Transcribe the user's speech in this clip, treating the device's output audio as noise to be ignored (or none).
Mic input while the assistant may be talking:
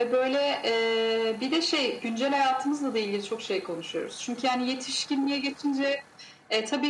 none